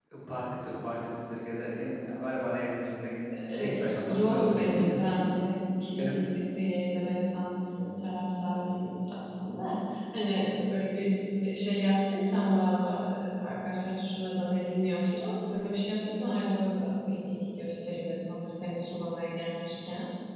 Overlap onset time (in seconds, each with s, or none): 3.6 s